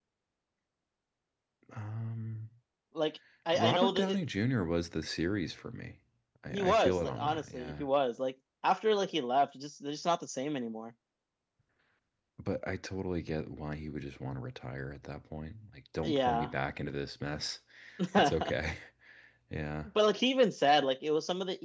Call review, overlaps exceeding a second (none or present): present